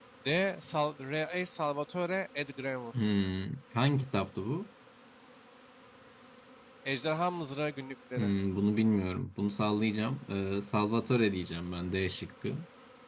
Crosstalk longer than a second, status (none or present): none